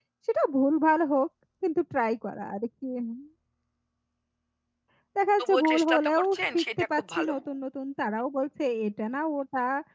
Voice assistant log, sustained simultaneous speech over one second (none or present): present